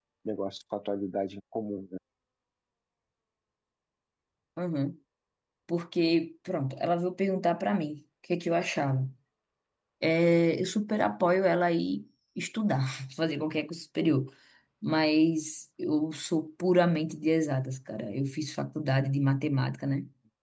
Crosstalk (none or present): none